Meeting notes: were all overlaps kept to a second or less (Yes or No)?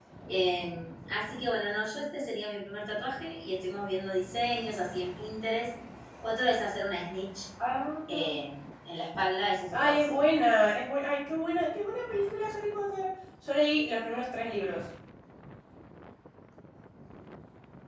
Yes